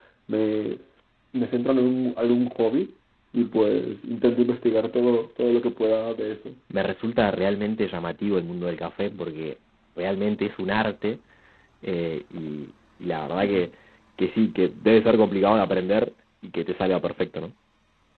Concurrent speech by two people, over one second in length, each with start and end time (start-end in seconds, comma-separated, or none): none